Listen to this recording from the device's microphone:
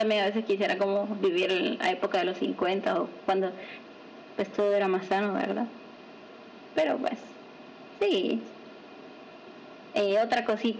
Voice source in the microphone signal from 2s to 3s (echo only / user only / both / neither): echo only